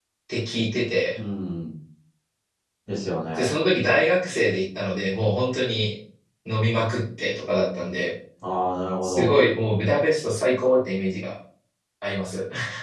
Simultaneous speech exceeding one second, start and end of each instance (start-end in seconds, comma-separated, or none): none